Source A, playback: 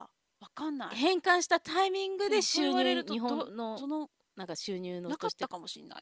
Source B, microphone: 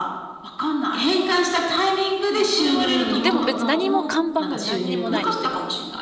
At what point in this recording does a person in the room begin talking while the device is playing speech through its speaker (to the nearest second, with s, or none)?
3 s